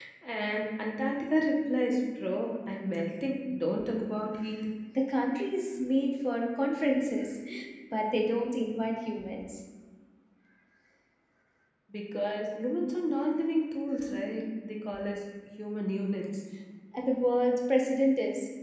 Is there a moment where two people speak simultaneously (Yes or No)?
No